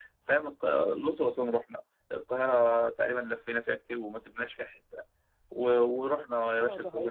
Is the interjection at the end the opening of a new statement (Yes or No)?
Yes